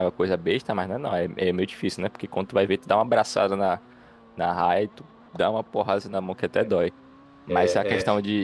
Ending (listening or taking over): listening